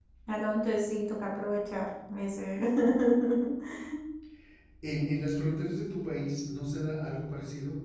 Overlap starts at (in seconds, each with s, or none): none